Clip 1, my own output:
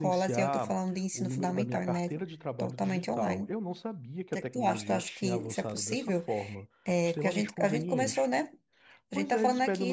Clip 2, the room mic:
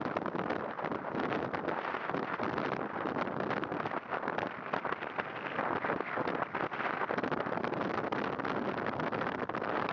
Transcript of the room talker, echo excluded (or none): none